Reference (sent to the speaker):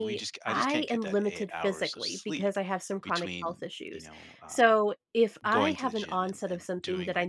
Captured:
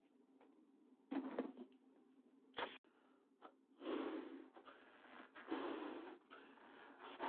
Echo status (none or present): none